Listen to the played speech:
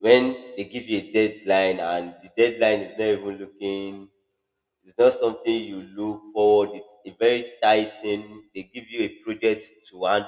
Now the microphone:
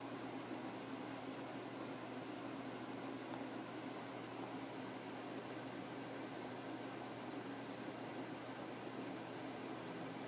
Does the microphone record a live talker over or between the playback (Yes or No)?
No